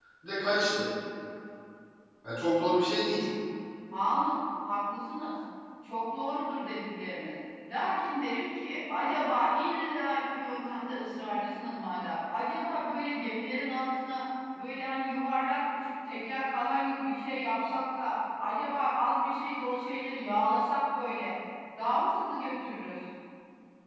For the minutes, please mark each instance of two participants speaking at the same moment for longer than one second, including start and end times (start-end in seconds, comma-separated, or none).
none